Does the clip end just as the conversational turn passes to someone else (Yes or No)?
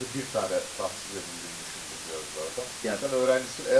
No